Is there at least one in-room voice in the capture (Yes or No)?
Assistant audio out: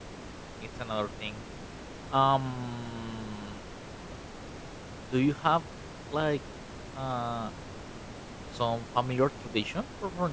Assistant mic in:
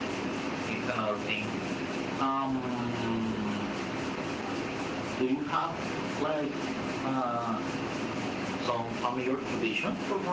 No